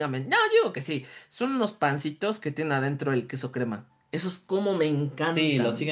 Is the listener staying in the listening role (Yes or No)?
No